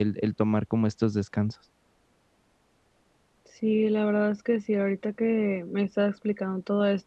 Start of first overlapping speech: none

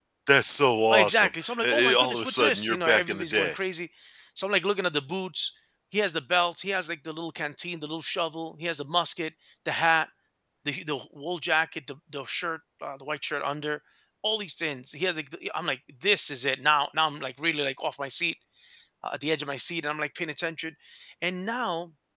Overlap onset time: 0.9 s

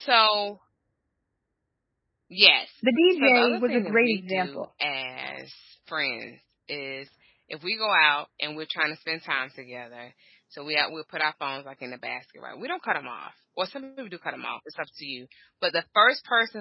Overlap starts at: 3.1 s

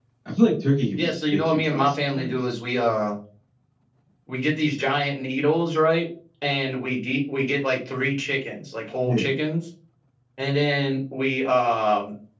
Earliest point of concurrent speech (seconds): 0.9 s

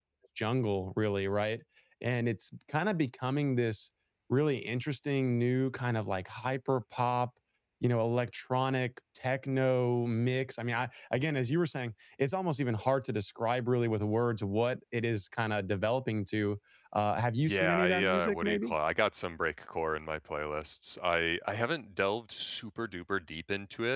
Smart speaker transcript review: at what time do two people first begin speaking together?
17.4 s

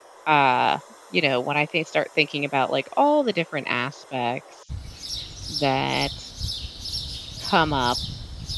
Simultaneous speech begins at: none

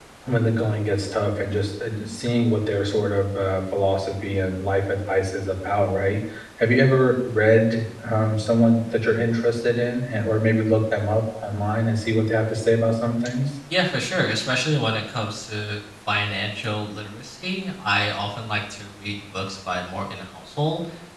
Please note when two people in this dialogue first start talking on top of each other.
none

